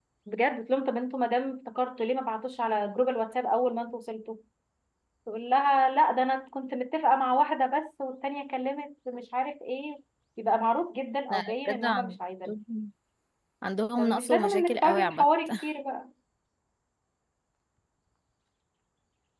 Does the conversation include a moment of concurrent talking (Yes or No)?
Yes